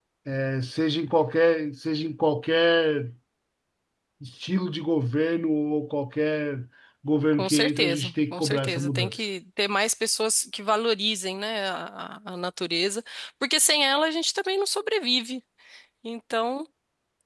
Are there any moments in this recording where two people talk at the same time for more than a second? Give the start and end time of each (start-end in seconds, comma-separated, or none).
7.3-9.3